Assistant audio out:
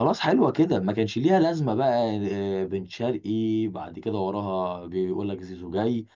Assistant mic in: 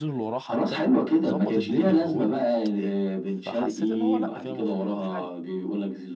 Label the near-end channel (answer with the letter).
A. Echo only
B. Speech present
B